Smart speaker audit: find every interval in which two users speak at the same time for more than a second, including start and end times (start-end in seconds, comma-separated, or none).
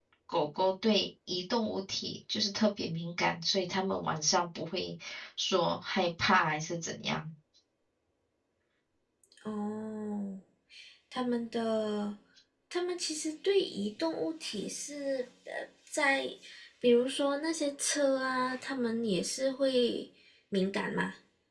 none